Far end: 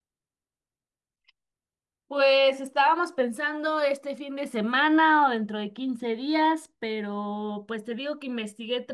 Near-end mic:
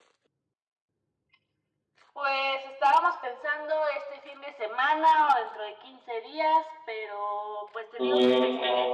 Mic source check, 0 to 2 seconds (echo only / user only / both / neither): neither